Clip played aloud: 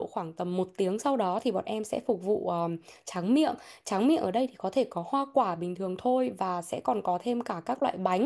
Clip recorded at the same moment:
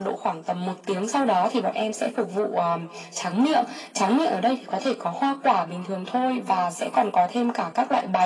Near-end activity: none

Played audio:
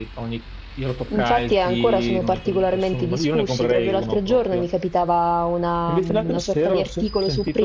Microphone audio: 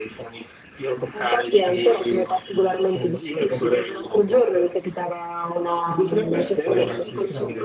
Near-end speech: present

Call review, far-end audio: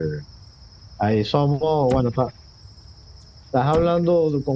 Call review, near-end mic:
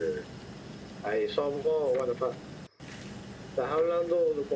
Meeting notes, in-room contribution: none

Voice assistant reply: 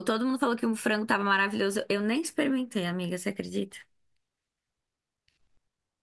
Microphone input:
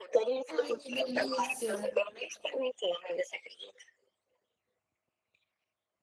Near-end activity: present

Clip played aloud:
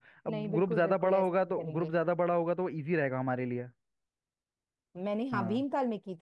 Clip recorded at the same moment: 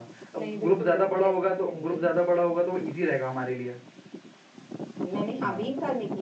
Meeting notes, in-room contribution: none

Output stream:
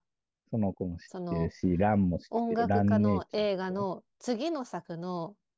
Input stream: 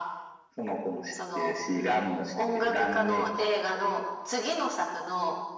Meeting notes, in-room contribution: none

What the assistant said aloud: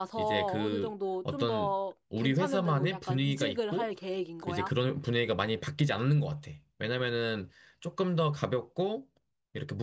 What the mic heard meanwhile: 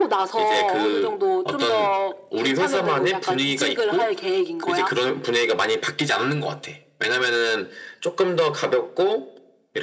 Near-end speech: none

